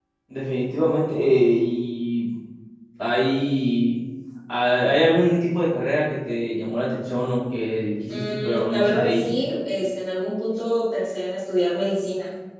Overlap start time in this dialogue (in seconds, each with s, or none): 8.1 s